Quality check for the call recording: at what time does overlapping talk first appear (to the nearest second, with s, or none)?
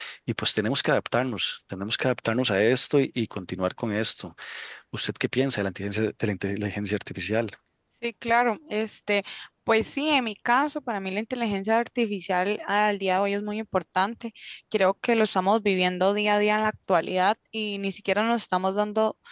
none